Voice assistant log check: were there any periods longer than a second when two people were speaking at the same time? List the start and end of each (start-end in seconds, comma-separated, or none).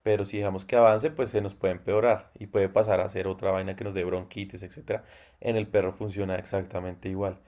none